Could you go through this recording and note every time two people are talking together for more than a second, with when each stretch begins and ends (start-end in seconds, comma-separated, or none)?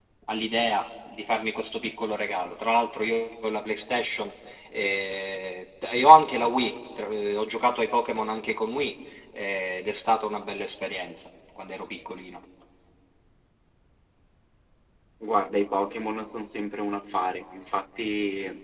none